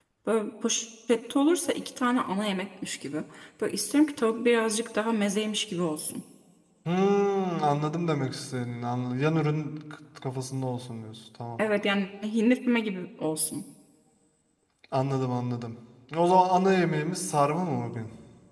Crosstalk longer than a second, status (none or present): none